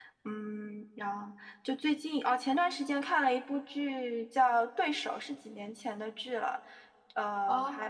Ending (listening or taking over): taking over